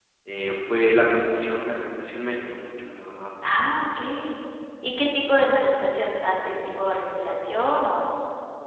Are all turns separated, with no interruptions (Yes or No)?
Yes